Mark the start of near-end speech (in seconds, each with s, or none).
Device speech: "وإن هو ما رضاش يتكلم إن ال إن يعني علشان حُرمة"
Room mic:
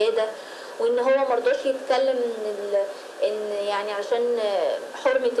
none